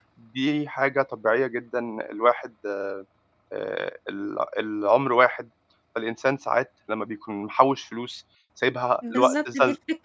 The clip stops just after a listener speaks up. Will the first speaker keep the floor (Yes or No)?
No